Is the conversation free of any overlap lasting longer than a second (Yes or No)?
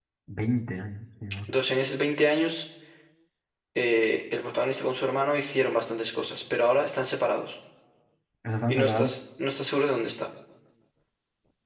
Yes